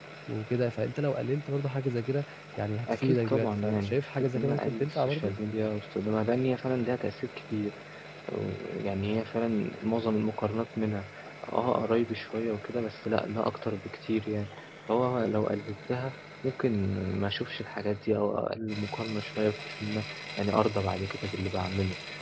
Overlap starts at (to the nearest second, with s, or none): 3 s